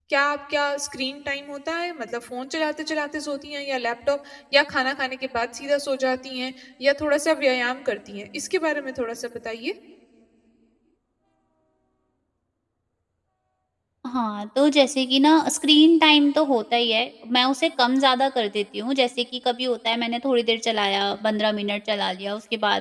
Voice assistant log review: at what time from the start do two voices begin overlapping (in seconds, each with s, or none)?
none